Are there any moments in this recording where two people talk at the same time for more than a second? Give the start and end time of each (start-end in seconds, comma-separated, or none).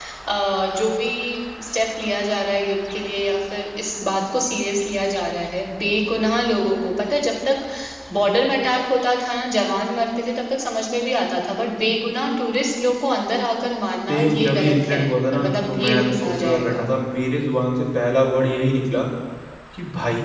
14.1-16.8